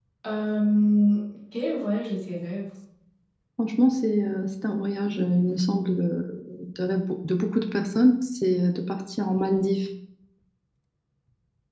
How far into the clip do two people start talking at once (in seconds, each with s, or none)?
none